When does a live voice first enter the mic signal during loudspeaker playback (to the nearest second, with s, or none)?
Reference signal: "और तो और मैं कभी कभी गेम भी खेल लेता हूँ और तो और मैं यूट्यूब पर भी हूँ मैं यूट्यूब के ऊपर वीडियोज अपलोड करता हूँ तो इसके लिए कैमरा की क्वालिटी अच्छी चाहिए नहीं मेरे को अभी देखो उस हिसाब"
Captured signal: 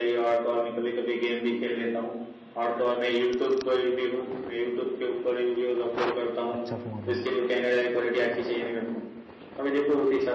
7 s